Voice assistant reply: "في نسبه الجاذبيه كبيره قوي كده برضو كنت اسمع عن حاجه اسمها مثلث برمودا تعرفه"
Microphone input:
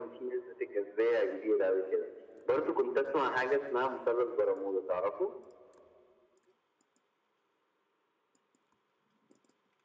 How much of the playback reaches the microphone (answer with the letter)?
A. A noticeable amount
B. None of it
A